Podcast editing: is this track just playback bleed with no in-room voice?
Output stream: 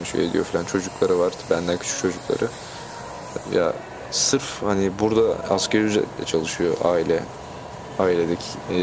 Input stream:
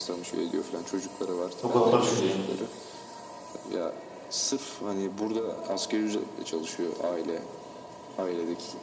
No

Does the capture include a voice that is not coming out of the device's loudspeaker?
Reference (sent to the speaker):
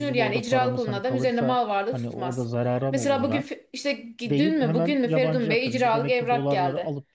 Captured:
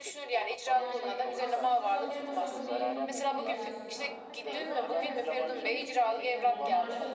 Yes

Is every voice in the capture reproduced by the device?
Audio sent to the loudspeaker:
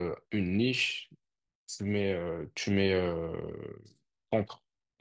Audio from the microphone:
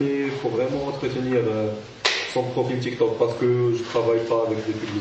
No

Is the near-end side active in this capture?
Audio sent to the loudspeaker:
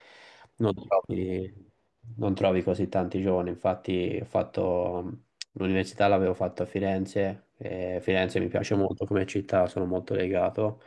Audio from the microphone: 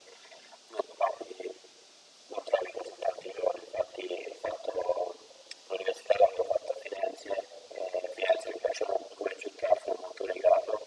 No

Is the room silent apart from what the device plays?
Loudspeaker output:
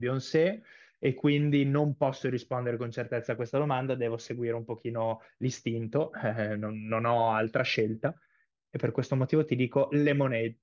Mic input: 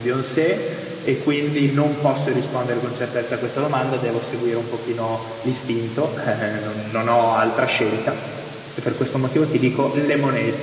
Yes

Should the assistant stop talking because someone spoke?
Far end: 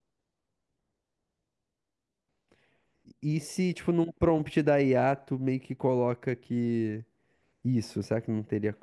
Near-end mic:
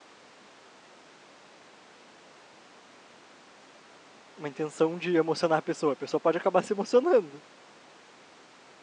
Yes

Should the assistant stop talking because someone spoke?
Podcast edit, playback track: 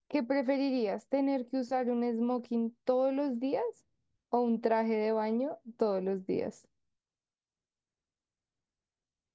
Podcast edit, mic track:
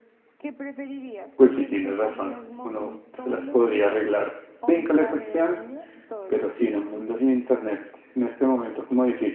Yes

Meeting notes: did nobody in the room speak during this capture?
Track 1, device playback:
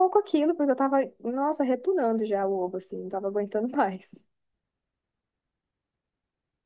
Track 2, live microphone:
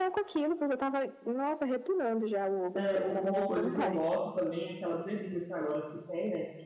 No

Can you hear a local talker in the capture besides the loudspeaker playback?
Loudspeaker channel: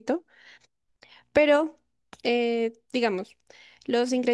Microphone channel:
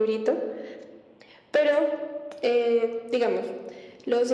No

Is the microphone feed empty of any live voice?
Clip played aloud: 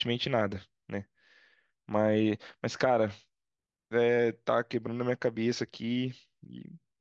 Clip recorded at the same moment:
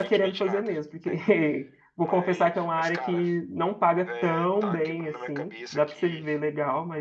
No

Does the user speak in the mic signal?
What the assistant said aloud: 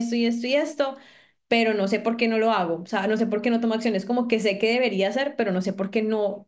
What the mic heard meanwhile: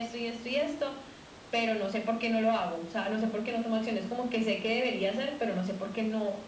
No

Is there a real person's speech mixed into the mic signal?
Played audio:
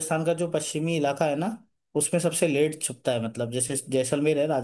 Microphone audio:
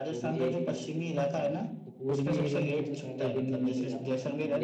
Yes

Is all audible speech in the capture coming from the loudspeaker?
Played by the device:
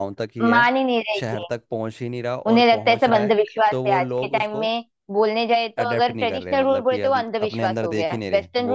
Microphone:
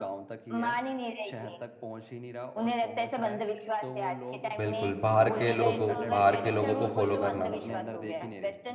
No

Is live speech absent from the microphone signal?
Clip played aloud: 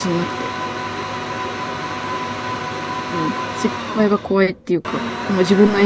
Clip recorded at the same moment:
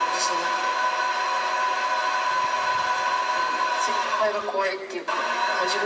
Yes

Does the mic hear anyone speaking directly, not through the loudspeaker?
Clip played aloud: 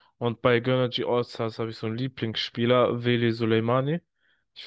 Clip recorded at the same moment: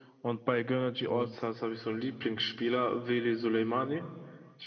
Yes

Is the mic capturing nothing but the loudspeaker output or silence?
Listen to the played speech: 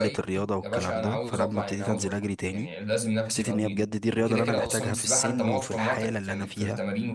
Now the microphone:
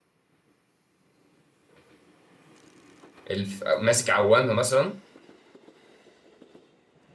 No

